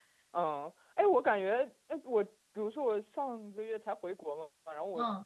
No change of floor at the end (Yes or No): Yes